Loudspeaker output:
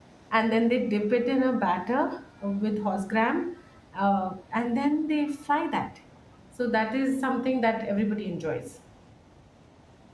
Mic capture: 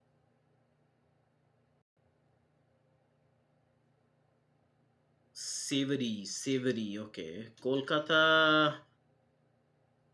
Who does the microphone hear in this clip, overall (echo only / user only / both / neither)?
user only